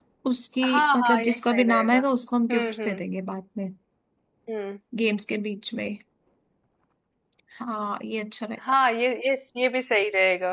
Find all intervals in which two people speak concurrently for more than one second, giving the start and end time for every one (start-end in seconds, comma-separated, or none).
0.6-2.0